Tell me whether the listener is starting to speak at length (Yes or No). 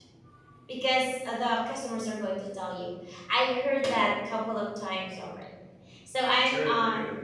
No